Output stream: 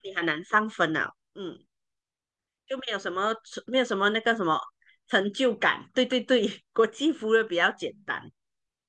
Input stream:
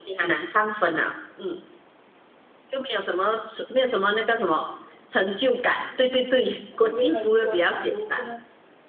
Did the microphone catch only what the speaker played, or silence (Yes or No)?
No